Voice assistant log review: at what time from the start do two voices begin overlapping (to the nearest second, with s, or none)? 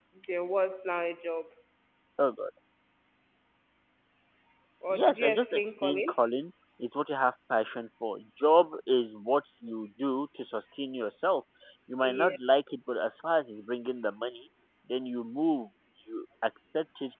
5 s